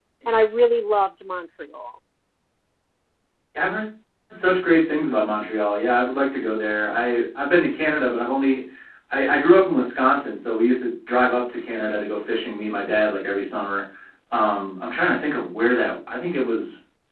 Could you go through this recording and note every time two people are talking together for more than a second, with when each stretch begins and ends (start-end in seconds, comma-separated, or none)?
none